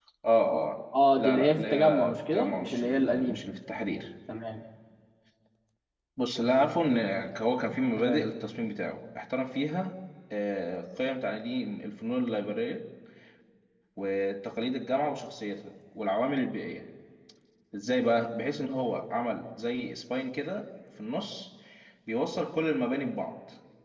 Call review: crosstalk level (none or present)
present